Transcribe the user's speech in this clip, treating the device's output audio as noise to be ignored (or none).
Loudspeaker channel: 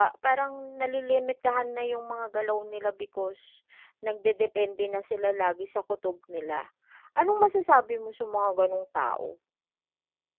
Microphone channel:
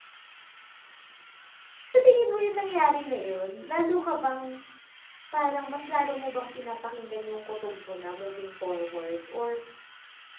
sa tingin mo yung nangyari na yun, lalo ka bang parang mas lalo mo bang pinapakinggan yung kutob mo na moving forward or